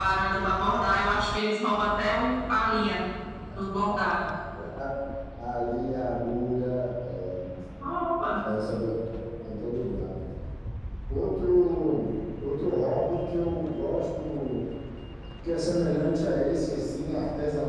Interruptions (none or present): none